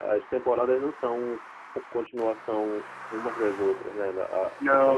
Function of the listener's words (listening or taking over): listening